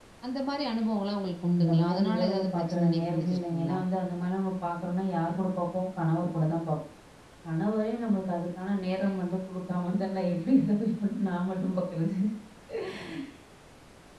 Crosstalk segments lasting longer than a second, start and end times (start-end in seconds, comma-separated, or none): 1.6-3.8